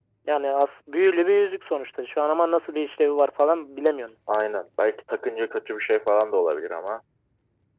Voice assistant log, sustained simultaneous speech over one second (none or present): none